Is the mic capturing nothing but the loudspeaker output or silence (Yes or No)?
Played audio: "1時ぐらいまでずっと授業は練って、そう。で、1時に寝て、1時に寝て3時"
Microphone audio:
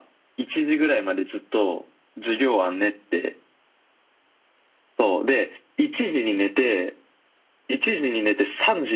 Yes